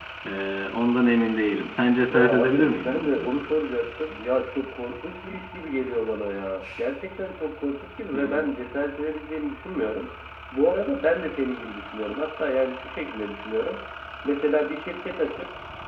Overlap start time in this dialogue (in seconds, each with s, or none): 2.1 s